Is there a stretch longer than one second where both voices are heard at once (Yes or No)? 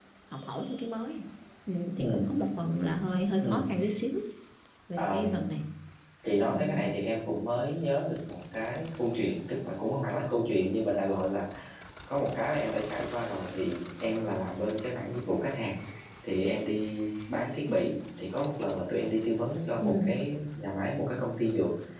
No